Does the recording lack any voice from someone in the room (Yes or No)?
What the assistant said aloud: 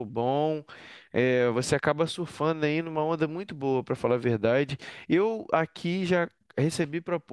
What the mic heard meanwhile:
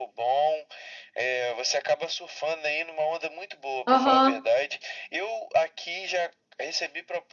No